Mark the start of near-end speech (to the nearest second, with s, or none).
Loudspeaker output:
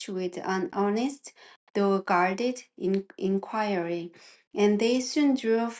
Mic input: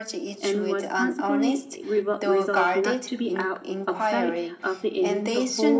0 s